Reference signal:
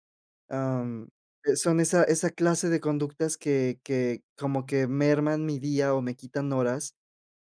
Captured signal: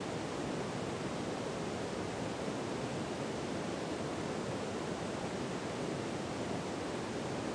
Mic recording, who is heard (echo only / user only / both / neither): neither